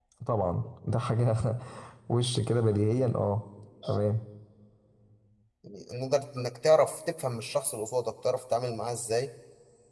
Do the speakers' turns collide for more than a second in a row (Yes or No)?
No